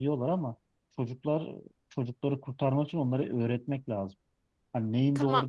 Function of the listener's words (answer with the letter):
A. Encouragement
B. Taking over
A